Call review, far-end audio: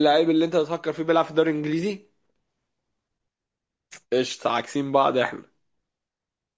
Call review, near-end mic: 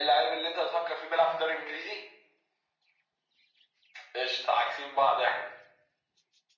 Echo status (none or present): present